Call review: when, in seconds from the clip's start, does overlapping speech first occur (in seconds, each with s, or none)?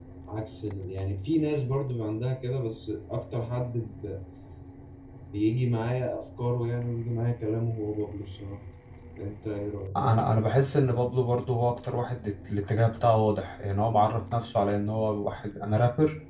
none